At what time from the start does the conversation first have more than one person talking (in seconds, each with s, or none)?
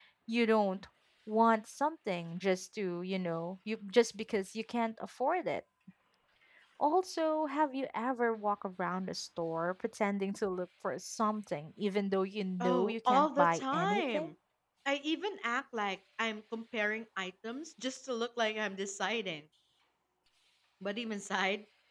12.6 s